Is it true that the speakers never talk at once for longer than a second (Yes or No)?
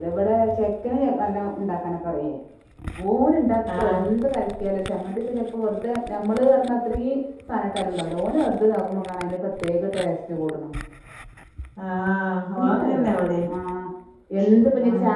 Yes